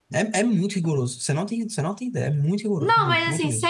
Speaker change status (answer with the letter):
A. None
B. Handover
B